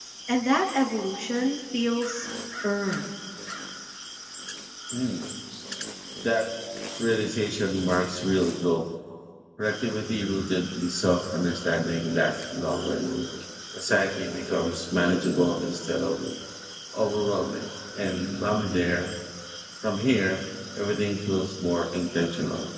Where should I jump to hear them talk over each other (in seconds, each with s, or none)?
none